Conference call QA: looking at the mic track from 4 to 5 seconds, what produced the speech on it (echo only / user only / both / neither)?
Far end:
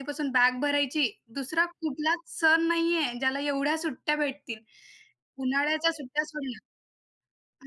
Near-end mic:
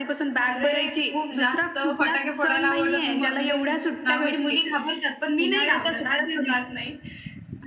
both